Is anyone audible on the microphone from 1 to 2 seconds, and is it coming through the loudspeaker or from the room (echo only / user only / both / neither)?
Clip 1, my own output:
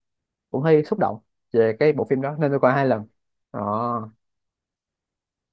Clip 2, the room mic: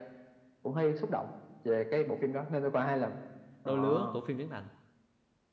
echo only